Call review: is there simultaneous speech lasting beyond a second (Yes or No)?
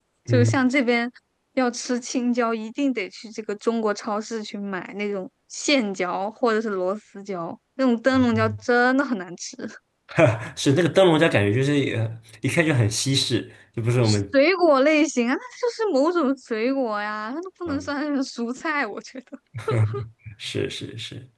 No